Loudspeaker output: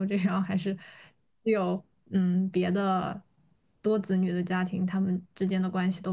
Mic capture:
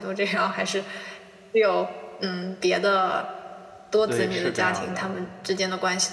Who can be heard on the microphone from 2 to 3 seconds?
echo only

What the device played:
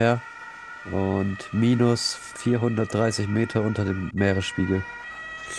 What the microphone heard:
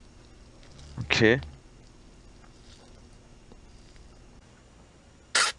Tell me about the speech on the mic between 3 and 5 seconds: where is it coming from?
neither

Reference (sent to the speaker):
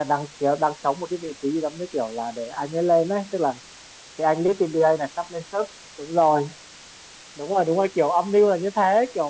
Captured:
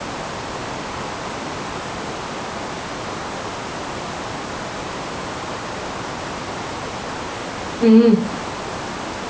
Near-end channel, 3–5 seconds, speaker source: neither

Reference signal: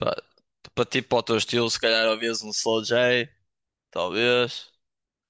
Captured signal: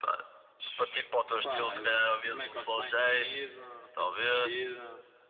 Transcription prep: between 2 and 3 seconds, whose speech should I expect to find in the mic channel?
both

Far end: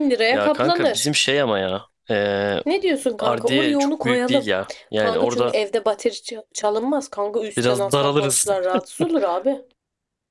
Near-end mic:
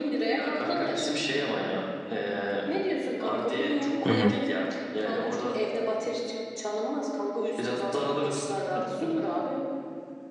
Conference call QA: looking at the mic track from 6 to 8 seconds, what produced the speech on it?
echo only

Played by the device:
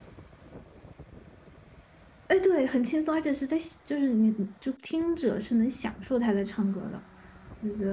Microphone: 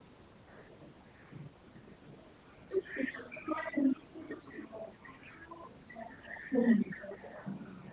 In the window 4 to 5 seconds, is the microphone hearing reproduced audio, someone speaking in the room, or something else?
echo only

